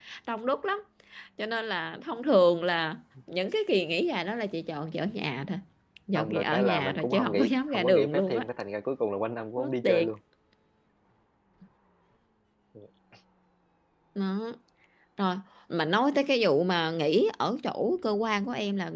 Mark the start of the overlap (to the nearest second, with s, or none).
6 s